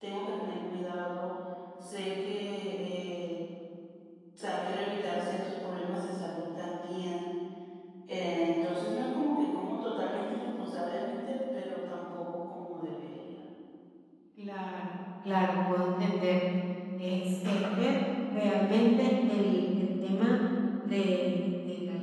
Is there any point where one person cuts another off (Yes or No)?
No